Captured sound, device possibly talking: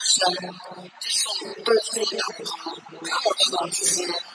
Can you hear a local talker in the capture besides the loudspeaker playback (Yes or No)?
No